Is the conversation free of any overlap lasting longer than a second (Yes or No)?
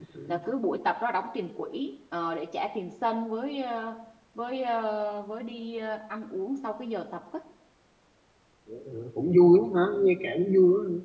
Yes